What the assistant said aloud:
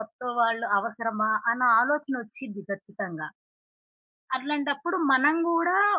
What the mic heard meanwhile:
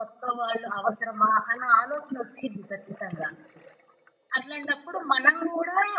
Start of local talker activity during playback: none

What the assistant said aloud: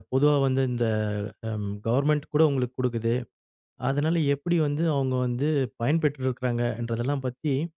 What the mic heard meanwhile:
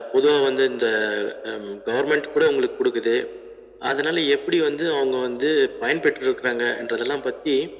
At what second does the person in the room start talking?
none

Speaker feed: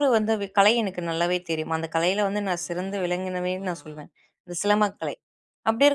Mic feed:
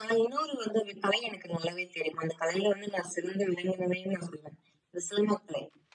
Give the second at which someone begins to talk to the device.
none

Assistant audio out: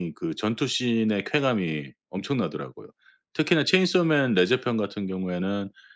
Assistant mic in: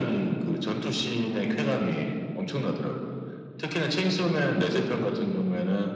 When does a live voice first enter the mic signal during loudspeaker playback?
none

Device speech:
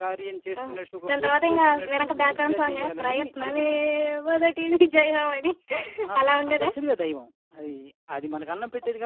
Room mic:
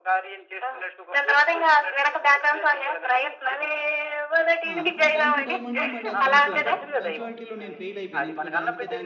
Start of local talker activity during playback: 4.7 s

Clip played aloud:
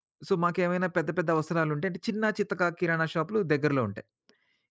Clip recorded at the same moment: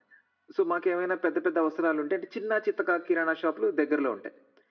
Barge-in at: none

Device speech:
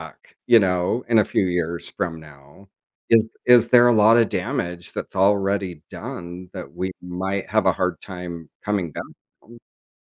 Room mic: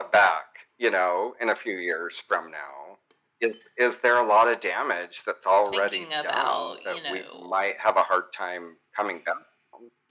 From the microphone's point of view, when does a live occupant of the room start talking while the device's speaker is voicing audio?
5.6 s

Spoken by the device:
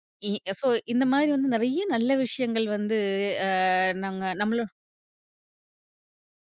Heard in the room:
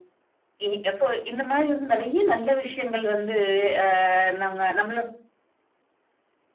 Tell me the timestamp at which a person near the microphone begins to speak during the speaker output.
none

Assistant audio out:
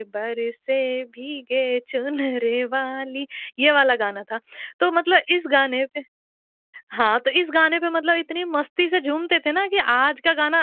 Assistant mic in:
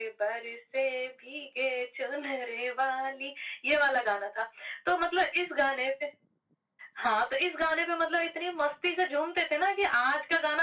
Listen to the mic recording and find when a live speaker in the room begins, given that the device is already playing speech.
none

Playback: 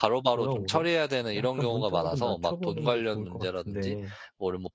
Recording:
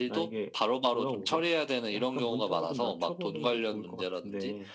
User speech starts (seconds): none

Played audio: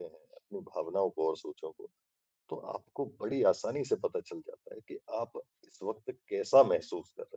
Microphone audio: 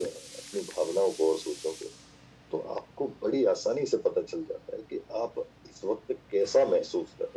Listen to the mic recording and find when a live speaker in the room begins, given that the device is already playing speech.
none

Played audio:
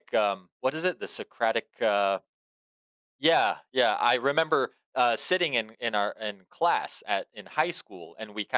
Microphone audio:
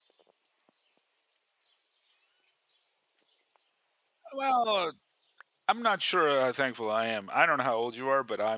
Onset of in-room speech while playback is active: 4.4 s

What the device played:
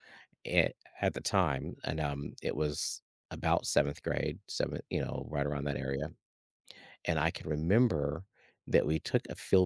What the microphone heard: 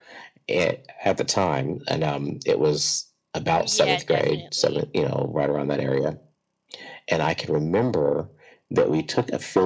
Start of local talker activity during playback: 3.5 s

